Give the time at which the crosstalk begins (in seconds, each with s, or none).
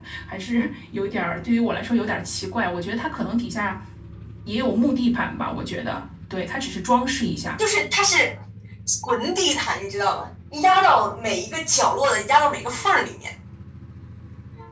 none